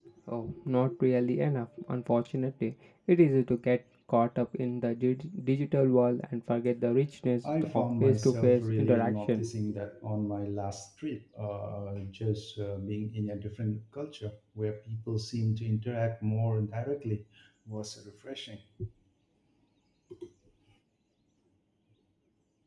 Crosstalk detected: Yes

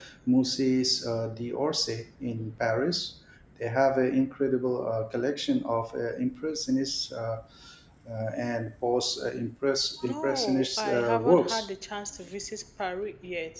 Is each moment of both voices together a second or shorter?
No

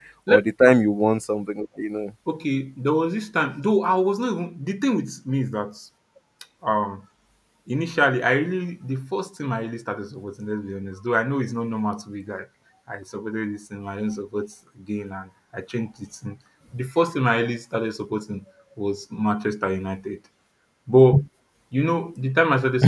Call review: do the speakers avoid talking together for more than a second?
Yes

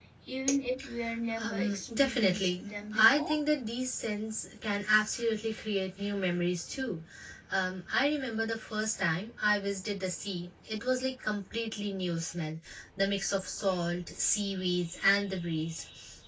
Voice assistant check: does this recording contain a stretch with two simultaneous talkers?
Yes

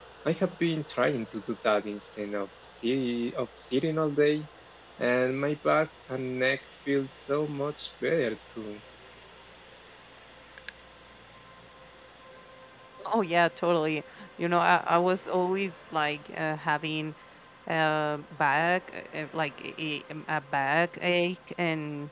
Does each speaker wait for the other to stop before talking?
Yes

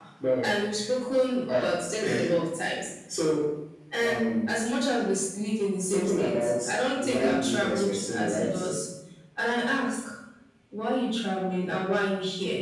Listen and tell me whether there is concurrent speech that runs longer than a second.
Yes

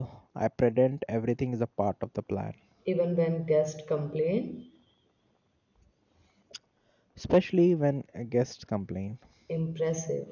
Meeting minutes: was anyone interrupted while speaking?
No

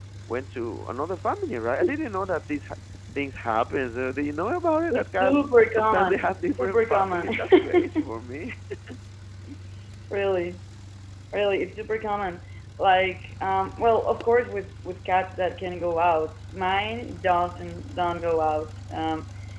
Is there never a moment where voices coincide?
No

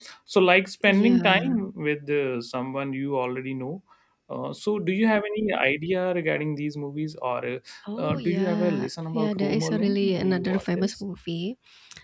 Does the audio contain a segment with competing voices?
Yes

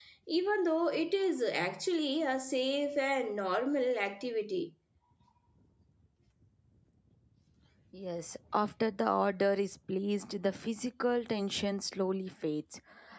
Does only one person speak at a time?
Yes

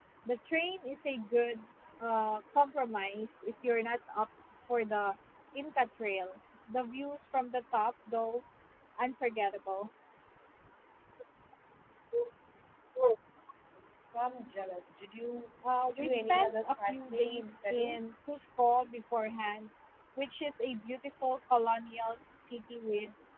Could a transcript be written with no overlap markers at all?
No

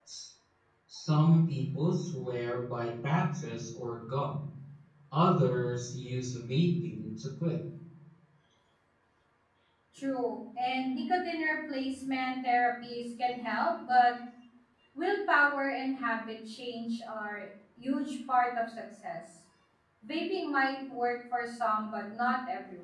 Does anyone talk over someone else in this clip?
No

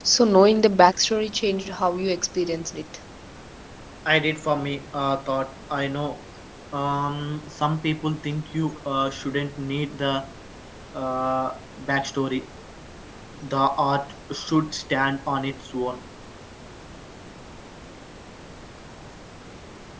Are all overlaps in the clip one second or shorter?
Yes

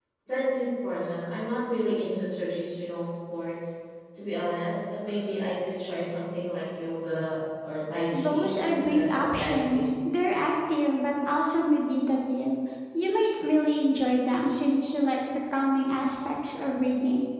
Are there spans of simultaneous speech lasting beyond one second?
Yes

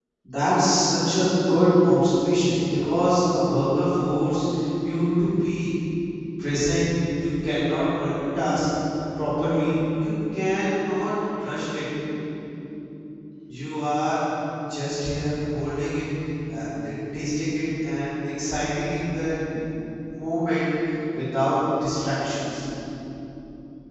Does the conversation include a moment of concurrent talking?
No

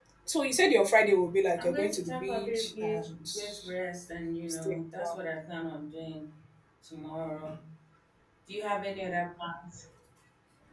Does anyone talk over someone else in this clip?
Yes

